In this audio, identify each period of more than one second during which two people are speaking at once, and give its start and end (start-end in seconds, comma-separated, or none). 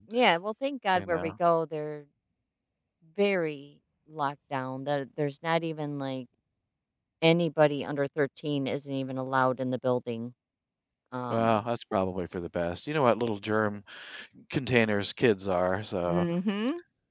none